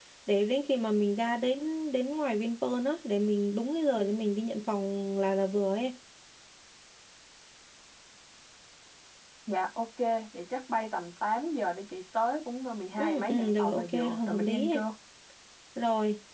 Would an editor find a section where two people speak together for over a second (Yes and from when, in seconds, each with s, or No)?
Yes, from 13.0 s